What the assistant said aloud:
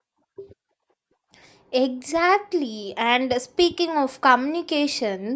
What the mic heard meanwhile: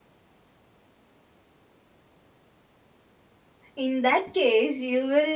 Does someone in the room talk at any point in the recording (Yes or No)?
Yes